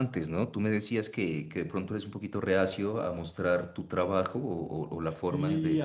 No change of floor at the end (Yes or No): No